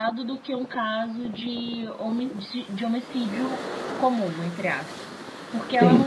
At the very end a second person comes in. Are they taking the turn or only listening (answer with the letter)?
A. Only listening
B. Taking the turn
A